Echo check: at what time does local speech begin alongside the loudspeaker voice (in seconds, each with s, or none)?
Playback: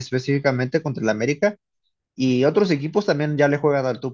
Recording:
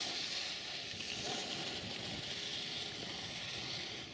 none